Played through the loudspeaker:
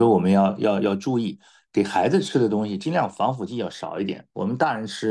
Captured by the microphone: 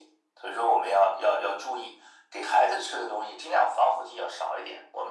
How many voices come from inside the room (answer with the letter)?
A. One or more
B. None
B